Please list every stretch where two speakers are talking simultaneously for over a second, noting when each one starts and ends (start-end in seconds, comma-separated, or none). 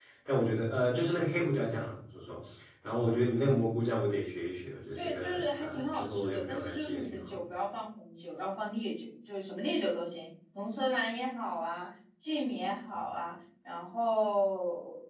5.0-7.4